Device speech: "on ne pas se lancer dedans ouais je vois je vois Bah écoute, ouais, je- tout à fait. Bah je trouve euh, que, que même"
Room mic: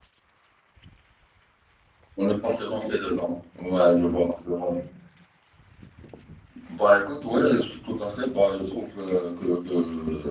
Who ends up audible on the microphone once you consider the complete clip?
echo only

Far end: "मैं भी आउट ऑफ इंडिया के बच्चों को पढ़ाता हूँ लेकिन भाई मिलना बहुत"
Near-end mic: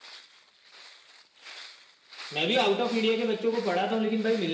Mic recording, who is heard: echo only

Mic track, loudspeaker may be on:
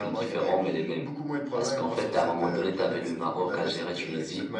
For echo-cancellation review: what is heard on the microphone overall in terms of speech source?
echo only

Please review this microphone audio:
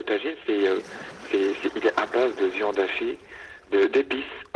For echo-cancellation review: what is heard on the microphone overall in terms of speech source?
echo only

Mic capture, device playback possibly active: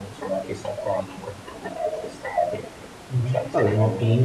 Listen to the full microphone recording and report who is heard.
both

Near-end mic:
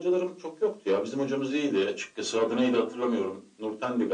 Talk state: both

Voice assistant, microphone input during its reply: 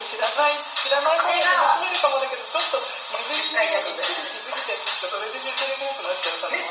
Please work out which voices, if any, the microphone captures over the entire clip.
echo only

